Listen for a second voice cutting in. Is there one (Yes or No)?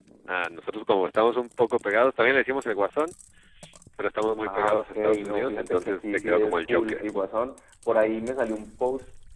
Yes